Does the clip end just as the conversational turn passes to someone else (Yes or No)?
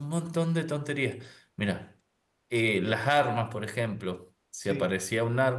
No